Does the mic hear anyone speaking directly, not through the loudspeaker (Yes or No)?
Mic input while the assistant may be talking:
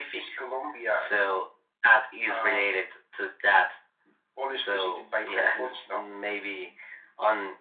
No